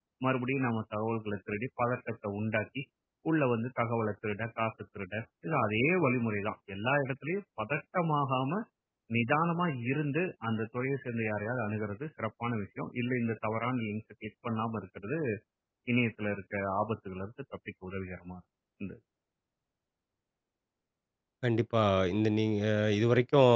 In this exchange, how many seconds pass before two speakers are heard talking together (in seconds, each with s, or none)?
none